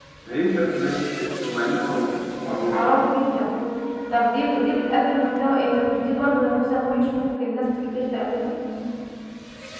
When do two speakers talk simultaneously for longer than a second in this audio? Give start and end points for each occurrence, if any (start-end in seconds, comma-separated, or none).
none